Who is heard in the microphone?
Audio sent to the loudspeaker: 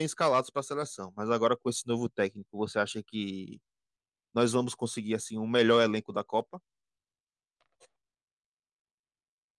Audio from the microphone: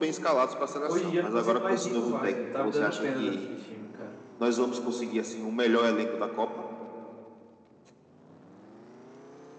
both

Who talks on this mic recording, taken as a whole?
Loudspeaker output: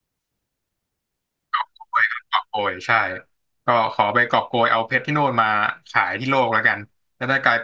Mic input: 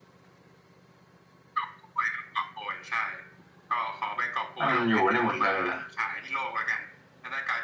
both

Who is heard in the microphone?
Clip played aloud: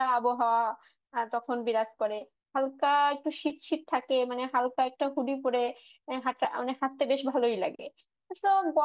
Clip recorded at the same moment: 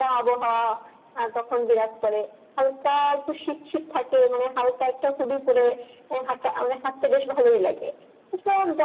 echo only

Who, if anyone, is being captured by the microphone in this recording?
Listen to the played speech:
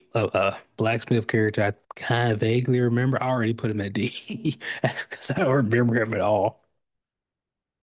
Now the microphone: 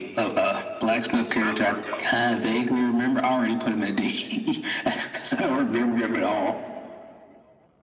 both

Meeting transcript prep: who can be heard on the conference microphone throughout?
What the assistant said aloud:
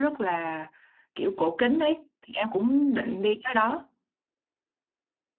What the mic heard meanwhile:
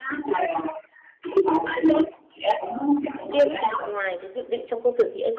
both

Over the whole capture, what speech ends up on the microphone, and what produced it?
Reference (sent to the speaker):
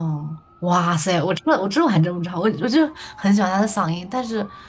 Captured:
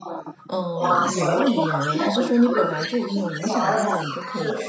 both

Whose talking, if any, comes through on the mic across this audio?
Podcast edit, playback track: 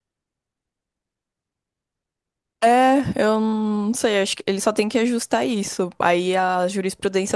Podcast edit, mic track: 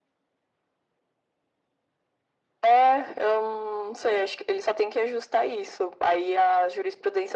echo only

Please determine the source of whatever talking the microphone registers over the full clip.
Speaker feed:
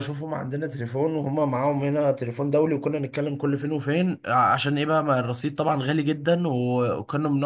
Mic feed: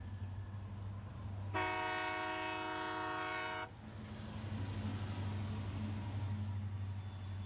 neither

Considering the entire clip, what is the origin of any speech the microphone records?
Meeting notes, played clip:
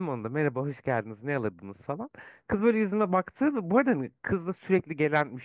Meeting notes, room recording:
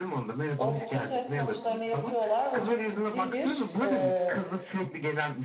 both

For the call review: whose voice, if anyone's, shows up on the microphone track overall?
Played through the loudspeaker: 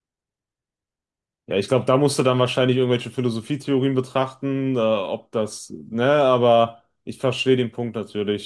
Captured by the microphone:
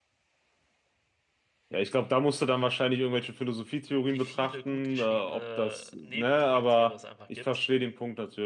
both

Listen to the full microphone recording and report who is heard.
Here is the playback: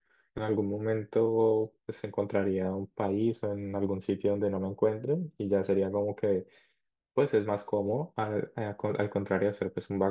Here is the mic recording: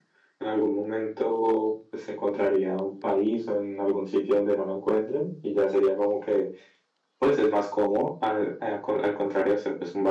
echo only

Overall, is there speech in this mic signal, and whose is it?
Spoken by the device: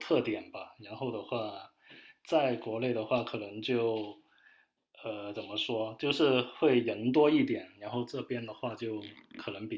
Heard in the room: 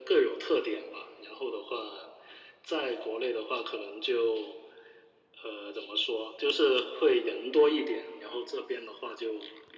echo only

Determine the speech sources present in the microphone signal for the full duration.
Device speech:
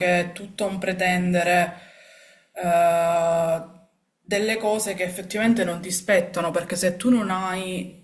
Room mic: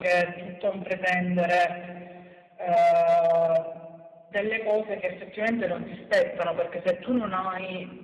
echo only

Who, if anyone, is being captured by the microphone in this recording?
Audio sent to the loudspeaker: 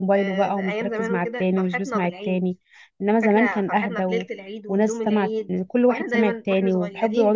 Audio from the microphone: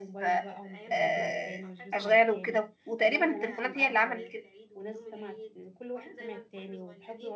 both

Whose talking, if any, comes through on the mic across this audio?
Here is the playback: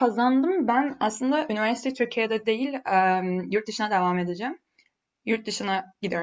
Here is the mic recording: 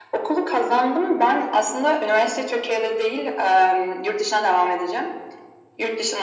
echo only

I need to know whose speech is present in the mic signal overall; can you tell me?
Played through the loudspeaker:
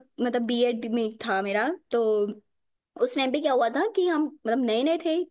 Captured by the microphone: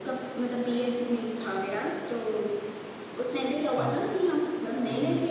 both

